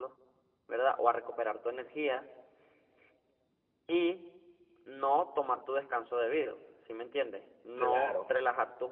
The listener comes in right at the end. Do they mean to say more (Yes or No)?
No